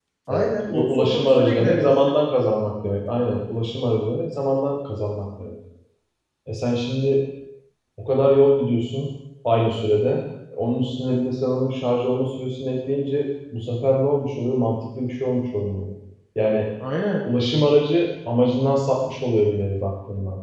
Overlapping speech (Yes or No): Yes